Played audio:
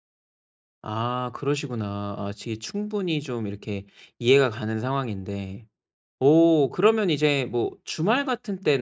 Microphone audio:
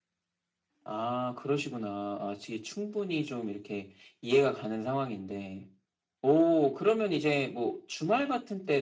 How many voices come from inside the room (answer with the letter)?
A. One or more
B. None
B